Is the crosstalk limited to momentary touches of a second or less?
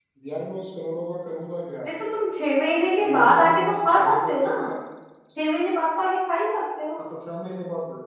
No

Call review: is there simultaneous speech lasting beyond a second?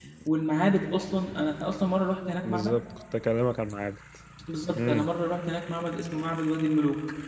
No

